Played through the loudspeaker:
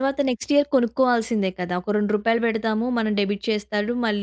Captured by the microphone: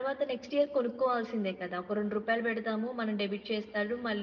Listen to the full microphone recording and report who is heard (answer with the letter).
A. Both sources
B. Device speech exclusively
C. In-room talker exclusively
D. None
B